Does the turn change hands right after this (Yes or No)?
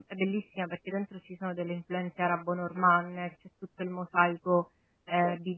Yes